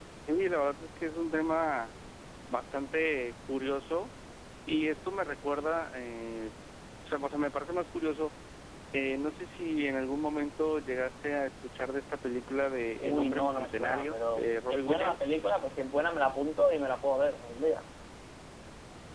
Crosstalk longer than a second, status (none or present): present